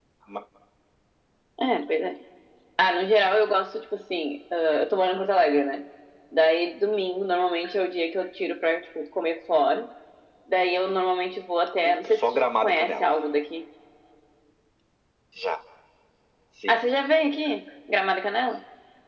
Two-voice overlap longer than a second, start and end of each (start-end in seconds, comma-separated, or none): 11.8-13.1